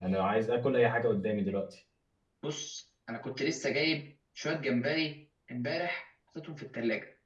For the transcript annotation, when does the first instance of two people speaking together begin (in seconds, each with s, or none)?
none